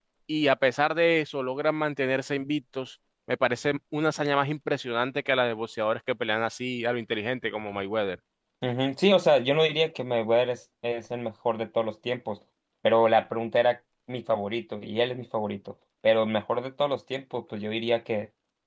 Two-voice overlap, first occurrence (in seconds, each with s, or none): none